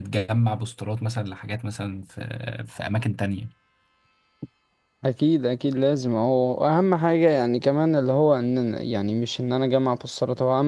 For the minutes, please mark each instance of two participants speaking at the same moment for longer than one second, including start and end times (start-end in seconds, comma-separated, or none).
none